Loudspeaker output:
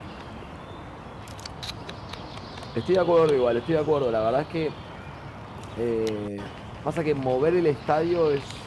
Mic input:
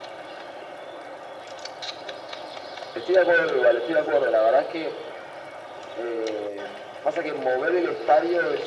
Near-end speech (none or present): none